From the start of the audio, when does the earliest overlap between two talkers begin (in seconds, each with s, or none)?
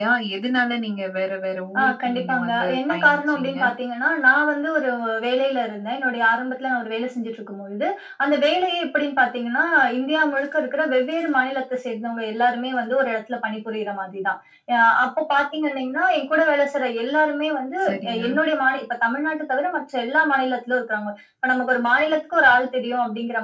1.8 s